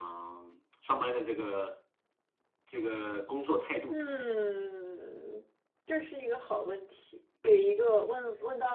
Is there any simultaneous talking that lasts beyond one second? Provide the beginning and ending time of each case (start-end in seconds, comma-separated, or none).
none